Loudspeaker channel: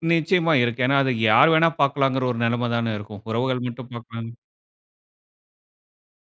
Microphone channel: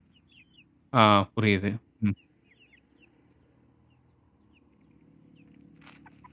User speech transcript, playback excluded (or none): ஆ புரியுது. ம்.